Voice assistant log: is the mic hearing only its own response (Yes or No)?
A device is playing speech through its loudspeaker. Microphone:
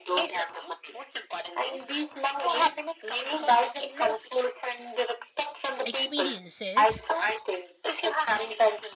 No